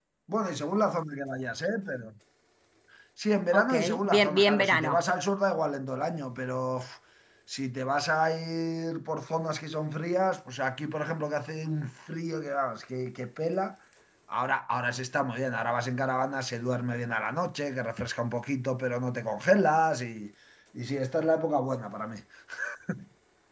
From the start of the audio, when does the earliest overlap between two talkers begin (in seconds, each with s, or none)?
3.5 s